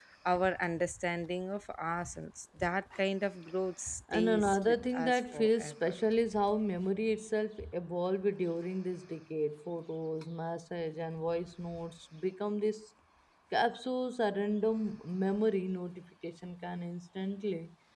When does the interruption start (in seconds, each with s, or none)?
4.1 s